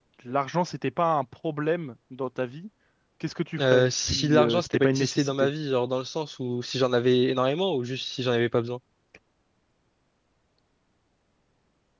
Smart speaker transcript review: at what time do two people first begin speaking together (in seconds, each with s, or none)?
3.6 s